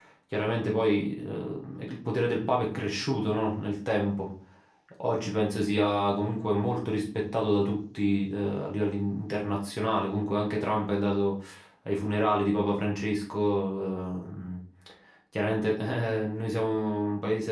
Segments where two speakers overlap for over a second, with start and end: none

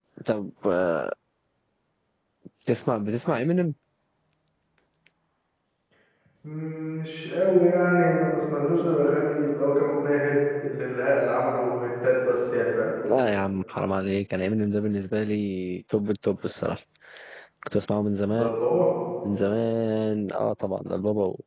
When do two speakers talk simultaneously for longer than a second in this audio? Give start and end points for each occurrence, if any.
none

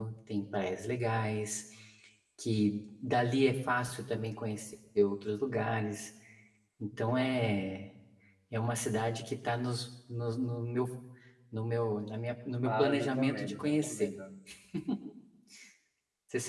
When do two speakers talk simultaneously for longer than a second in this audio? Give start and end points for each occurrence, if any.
12.6-14.1

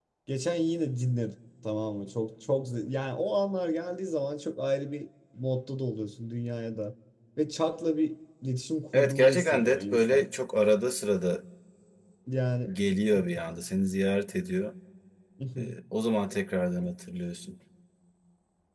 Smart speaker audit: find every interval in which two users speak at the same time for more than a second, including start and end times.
8.9-10.2

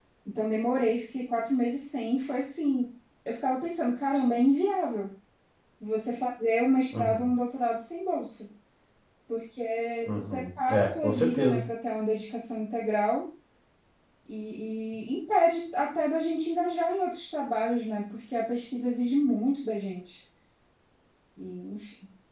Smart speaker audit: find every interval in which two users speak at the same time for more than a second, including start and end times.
10.2-11.6

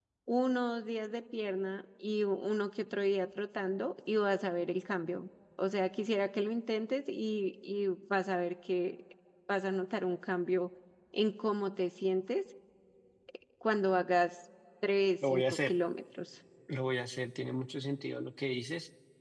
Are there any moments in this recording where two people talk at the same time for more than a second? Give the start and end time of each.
none

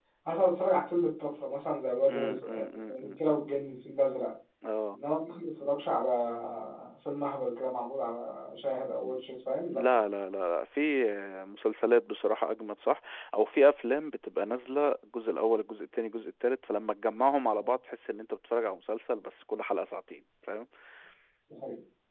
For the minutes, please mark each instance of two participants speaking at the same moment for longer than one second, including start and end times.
2.1-3.4

